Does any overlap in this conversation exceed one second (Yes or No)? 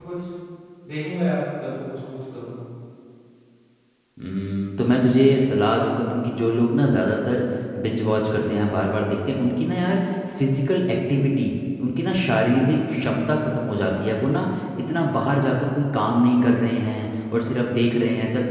No